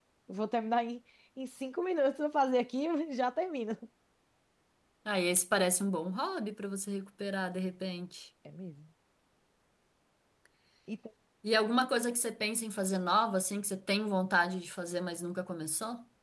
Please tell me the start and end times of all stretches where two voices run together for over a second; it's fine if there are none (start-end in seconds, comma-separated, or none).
none